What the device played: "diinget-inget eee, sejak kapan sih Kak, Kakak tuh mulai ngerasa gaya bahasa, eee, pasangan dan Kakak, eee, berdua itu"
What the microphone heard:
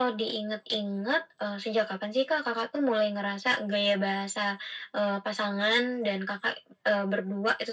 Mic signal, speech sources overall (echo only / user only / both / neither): echo only